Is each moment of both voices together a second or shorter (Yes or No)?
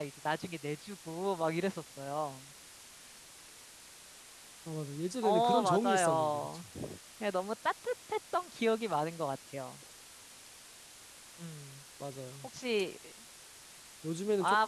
No